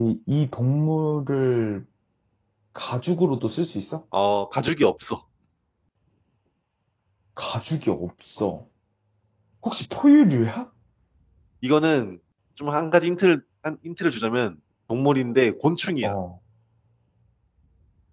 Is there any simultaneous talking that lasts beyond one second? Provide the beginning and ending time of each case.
none

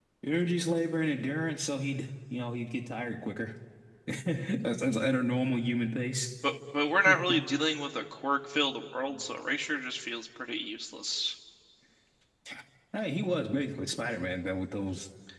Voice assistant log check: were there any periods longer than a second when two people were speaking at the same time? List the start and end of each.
none

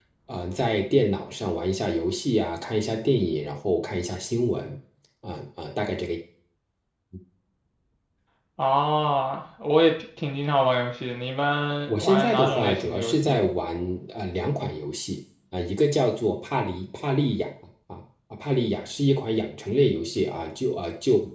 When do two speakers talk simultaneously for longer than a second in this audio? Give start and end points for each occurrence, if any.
11.9-13.4

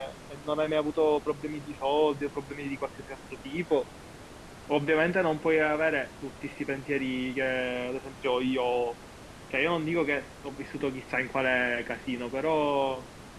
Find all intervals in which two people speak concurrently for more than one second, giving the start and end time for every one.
none

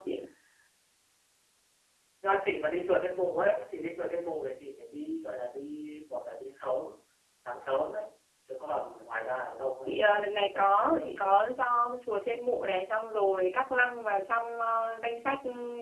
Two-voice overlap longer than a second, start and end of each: 9.9-11.4

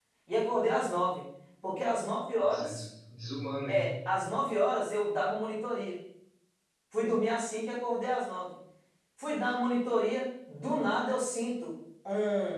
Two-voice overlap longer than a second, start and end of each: none

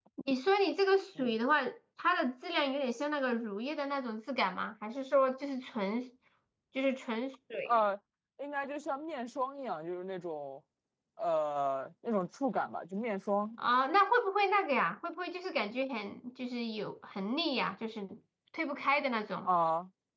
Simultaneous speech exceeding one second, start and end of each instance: none

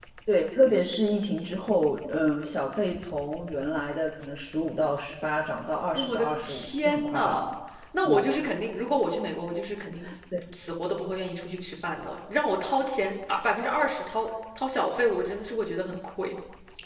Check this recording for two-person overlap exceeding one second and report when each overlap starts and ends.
6.0-7.4

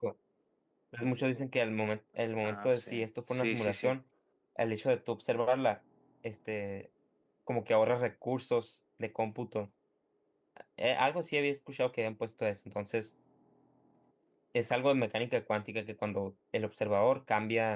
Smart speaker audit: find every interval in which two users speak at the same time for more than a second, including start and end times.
2.4-3.9

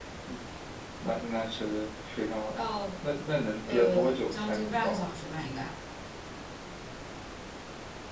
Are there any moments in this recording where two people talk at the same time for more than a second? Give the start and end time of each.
3.7-5.1

